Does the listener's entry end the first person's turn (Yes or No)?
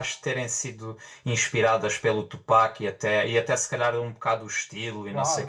Yes